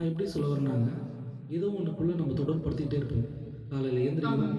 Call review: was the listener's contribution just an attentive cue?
Yes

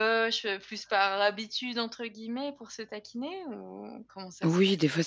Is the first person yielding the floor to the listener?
Yes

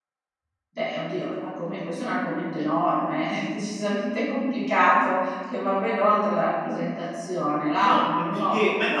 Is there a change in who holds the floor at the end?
Yes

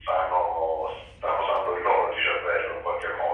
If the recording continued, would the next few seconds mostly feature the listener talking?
Yes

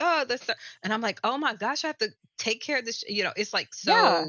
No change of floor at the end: No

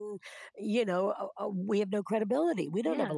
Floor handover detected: Yes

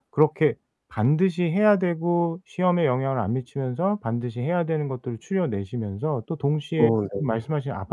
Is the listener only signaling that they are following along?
Yes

